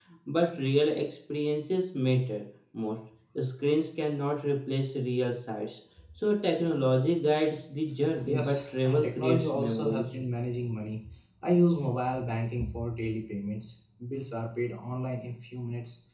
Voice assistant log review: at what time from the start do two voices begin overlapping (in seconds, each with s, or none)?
8.2 s